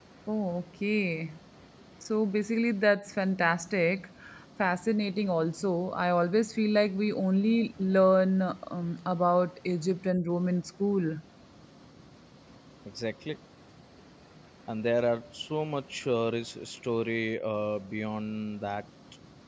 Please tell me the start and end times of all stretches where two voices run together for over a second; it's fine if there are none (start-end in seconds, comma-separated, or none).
none